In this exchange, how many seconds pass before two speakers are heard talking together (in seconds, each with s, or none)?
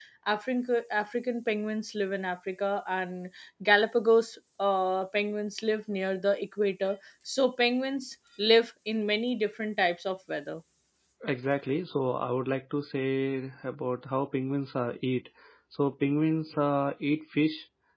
none